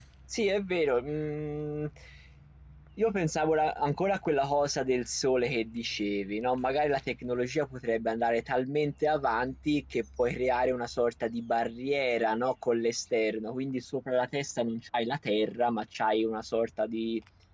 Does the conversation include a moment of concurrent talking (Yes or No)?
No